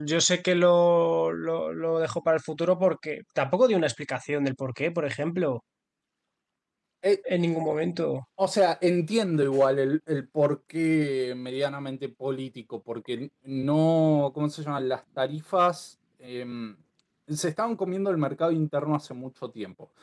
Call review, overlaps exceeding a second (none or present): none